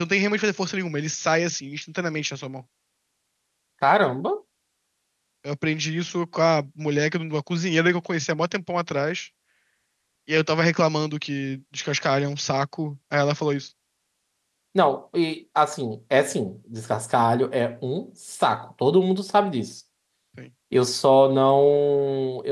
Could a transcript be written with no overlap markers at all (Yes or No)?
Yes